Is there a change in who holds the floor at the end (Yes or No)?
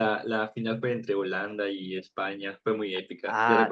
Yes